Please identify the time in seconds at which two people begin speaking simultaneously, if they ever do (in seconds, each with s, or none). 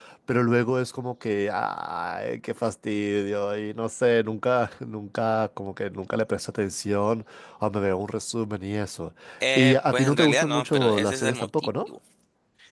9.6 s